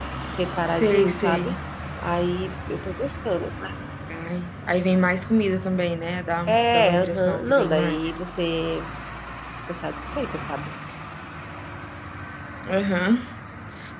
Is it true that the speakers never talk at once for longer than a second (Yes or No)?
No